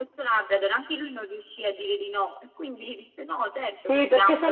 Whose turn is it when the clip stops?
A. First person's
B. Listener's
B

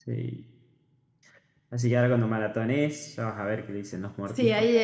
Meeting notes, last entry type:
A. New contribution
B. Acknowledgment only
A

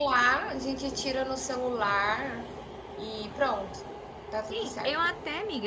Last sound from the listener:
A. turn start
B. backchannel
A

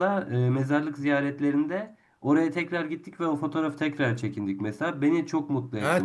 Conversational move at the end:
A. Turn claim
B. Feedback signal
A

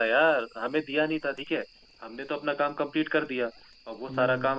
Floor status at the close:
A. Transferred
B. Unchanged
B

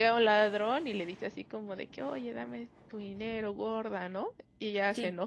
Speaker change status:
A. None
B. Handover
A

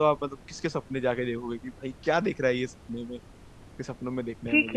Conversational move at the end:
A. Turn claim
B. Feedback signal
A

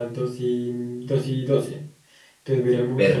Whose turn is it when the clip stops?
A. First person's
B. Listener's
A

